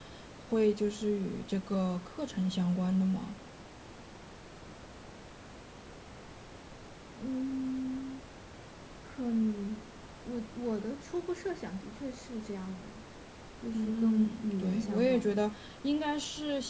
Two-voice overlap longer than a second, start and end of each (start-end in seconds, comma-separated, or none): 13.7-15.5